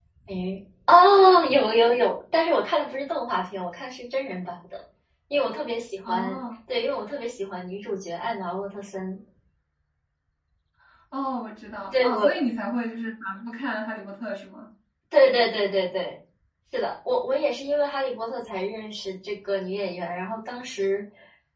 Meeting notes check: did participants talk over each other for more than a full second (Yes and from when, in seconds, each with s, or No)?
No